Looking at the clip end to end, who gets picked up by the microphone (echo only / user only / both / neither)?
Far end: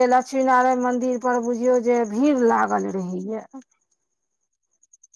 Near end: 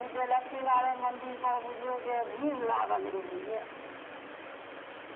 echo only